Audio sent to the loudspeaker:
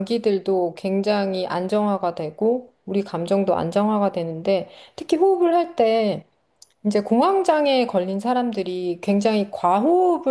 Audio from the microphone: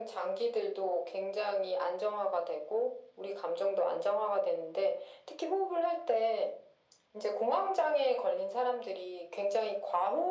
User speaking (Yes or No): No